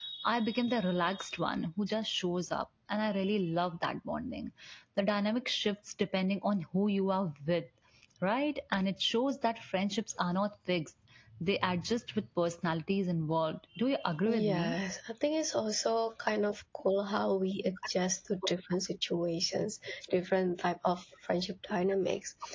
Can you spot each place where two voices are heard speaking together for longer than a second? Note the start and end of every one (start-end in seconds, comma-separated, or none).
none